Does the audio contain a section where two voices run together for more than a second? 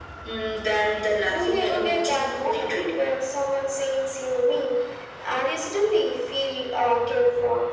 Yes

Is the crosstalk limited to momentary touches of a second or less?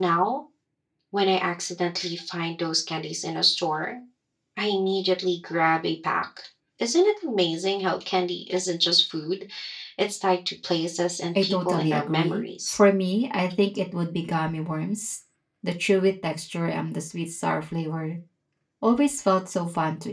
No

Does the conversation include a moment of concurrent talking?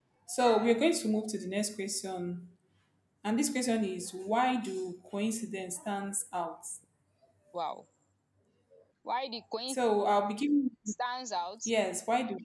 No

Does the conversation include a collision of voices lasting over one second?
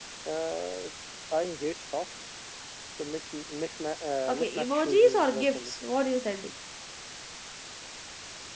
Yes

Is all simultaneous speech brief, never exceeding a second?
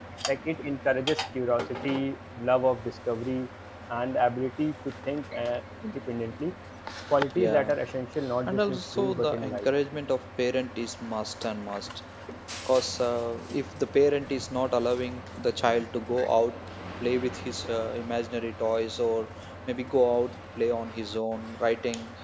No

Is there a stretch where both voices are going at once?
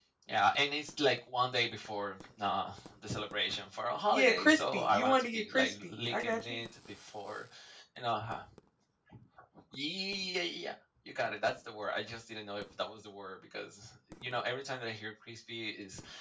Yes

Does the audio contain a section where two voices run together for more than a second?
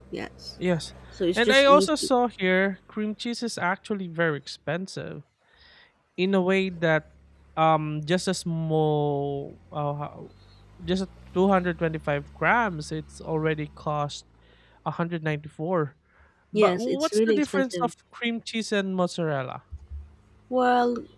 Yes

